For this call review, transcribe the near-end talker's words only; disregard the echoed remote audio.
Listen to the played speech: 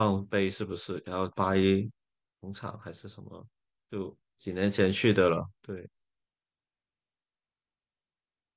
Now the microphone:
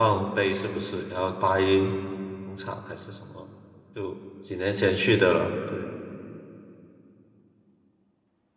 none

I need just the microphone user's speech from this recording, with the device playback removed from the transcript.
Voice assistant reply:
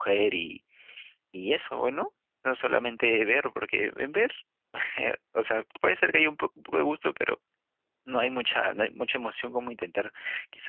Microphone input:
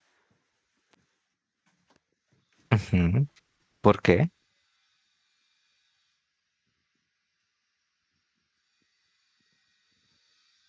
ujú, ¿Por qué?

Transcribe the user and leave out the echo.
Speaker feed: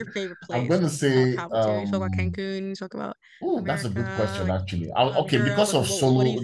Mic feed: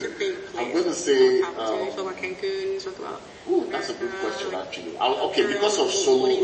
none

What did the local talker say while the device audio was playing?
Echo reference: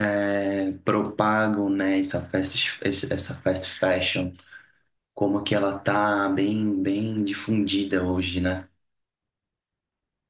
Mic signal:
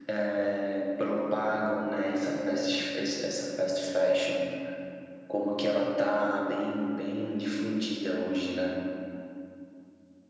none

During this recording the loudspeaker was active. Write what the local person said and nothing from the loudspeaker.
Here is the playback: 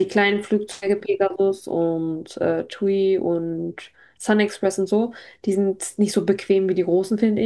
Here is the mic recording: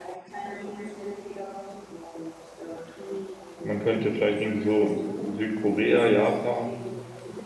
Man könnte vielleicht irgendwie so Sü- Südkorea, Japan,

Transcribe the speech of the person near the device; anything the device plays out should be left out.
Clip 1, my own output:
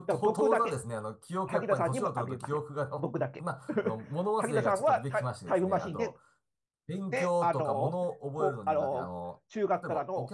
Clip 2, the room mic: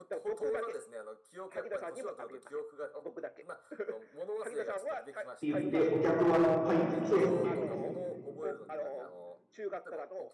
て言って、お客はいっぱいいそうですよね。

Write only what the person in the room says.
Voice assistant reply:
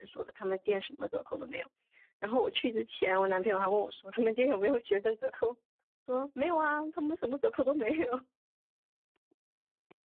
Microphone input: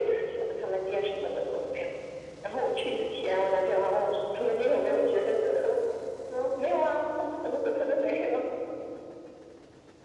none

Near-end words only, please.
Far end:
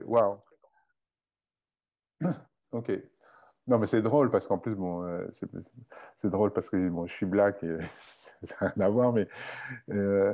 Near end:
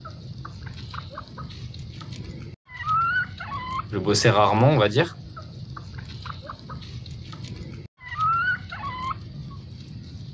je bossais rarement, on va dire.

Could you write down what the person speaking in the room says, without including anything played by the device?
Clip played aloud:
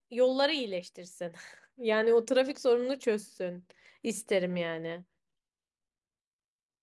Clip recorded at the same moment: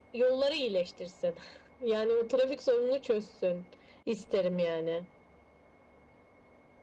none

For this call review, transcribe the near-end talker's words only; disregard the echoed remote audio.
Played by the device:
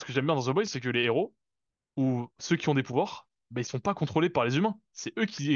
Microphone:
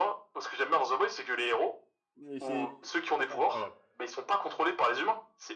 Et C'est ça qui est incroyable.

